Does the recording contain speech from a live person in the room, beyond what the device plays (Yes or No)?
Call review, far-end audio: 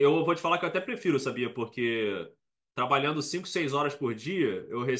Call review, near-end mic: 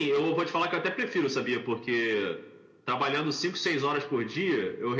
No